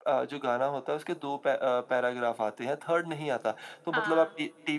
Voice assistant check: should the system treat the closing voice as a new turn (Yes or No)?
No